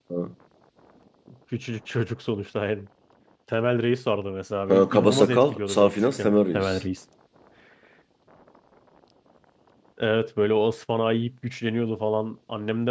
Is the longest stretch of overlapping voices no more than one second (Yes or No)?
No